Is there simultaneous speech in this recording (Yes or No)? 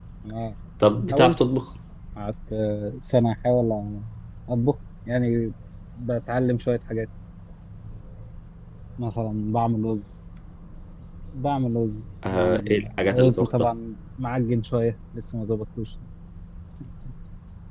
Yes